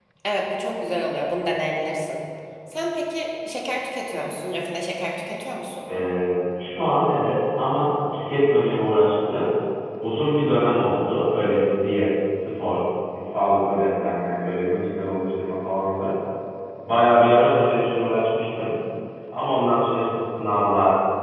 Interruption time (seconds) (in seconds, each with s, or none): none